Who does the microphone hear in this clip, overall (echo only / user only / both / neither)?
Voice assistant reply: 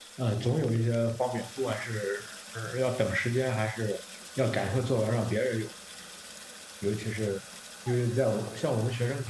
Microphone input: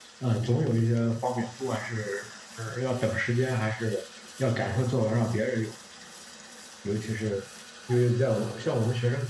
echo only